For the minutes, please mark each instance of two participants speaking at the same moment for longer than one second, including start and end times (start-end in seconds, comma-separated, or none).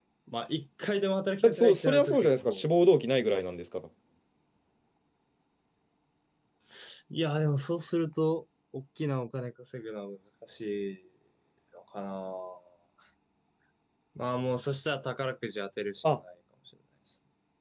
1.4-2.6